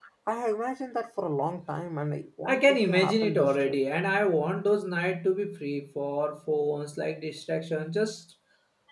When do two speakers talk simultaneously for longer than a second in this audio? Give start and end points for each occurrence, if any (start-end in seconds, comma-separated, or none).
2.5-3.8